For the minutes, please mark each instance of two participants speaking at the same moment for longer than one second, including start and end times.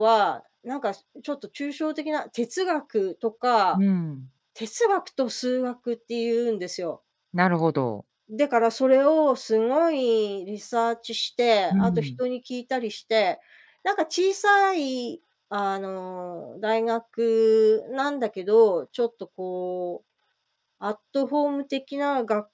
none

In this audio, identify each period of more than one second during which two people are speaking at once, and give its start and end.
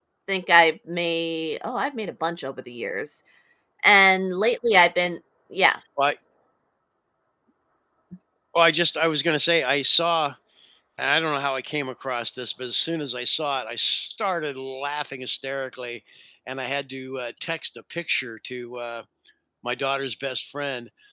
none

